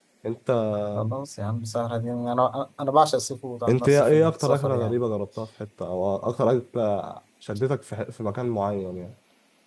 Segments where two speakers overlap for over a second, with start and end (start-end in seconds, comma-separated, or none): 3.7-5.0